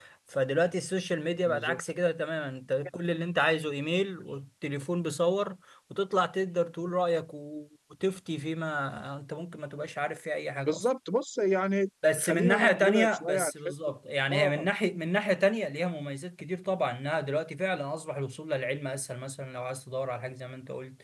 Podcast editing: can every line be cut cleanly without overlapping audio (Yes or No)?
No